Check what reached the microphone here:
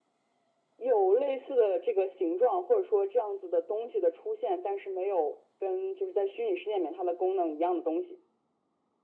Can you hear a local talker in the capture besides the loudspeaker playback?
No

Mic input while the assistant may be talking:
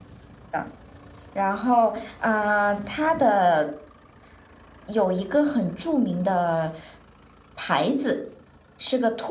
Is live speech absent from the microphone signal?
Yes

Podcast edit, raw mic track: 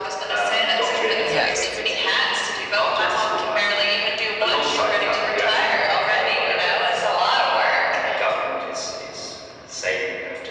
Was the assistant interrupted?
Yes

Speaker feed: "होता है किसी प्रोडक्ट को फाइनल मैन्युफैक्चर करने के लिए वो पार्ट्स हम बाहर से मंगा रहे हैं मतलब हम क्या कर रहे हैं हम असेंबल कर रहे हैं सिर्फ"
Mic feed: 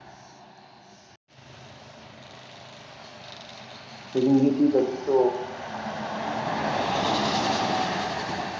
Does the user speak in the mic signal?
Yes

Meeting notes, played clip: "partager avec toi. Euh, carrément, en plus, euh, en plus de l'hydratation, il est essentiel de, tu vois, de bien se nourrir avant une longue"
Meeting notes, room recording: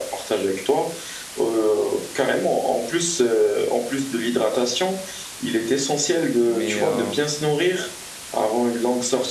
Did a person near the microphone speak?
Yes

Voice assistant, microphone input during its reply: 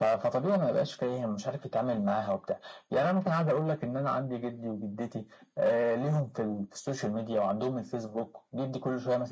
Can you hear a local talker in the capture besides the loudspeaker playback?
No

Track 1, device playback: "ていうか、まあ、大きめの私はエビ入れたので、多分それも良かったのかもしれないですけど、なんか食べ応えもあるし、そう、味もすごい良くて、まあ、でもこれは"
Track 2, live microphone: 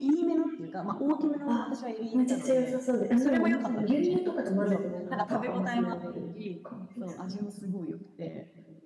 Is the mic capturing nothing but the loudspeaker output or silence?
No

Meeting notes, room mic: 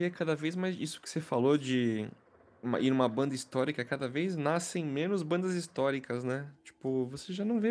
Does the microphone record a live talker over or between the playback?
Yes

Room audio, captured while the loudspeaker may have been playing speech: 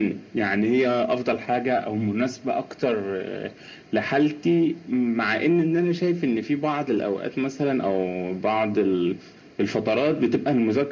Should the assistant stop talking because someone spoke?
No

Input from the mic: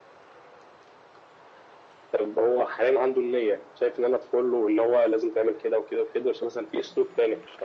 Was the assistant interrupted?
No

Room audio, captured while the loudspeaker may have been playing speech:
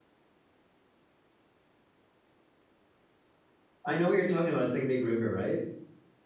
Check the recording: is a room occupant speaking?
Yes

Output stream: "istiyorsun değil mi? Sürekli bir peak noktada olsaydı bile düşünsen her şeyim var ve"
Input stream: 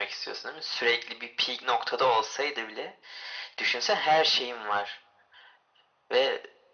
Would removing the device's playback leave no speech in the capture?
Yes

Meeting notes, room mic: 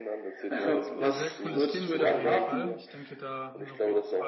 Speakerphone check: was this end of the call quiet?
No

